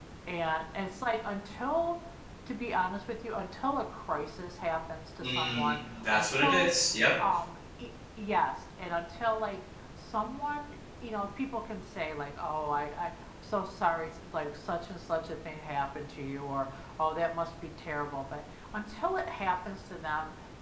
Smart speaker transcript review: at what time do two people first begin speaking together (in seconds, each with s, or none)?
5.2 s